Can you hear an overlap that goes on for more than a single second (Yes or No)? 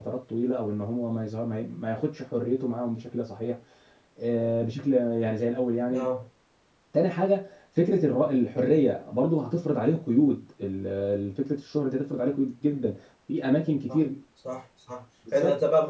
No